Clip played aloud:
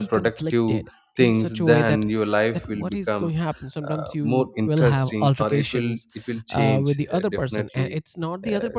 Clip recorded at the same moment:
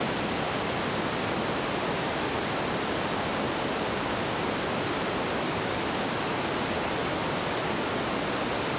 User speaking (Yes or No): No